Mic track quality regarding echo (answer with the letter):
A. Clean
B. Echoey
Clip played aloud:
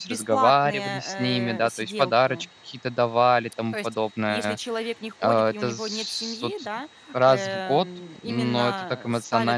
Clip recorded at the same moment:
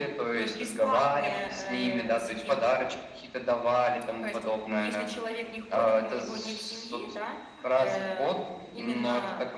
B